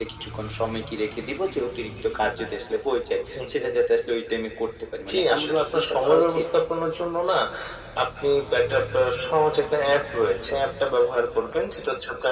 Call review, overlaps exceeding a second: present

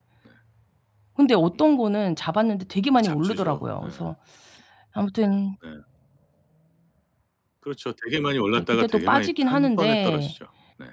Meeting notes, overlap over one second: present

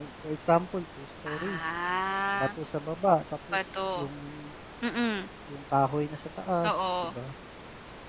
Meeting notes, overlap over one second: none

